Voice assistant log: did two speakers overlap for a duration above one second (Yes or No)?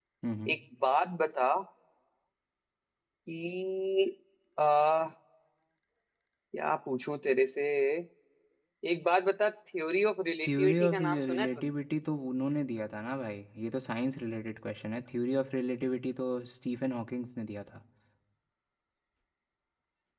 Yes